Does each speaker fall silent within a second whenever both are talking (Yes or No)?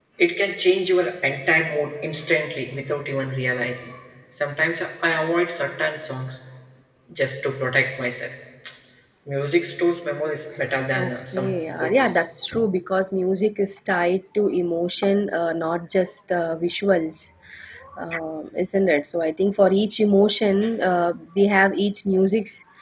No